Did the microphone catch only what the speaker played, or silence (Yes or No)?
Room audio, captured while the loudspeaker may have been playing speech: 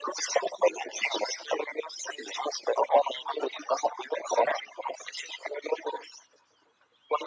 Yes